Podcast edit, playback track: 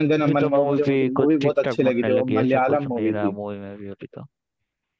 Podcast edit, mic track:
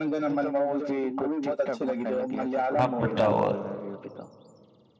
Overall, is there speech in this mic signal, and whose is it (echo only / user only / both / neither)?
both